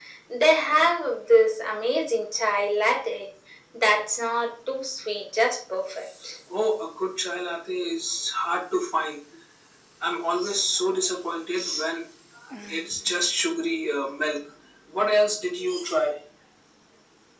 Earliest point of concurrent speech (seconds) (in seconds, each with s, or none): none